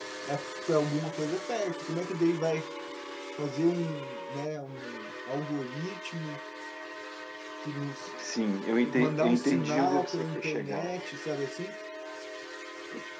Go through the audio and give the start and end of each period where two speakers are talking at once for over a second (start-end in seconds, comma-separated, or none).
8.8-10.9